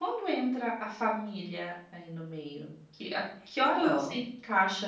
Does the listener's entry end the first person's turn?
No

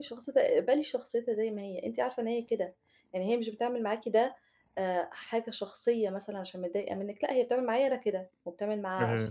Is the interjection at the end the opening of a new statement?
No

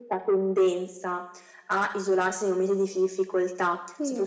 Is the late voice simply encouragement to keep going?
Yes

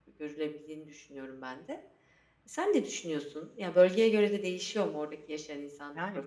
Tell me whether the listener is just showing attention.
No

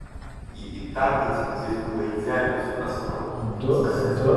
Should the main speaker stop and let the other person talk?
Yes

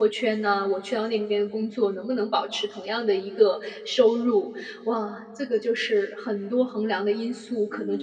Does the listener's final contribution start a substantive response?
Yes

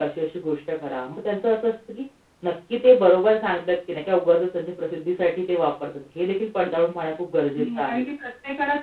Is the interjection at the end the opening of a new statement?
Yes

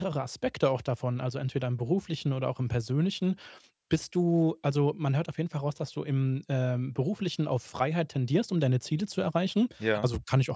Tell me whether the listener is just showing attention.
Yes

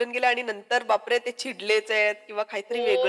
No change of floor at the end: No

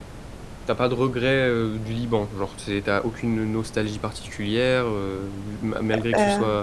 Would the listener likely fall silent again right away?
Yes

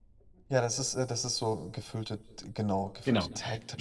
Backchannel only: No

